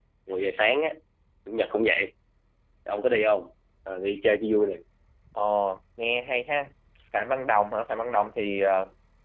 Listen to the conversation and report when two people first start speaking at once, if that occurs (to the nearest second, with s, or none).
none